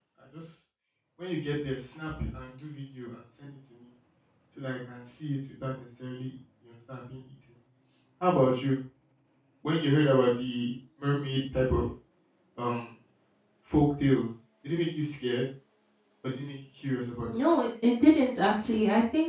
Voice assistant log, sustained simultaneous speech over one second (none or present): none